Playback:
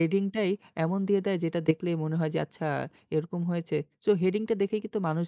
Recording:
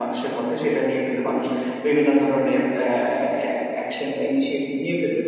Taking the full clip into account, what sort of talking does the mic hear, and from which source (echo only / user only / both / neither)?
user only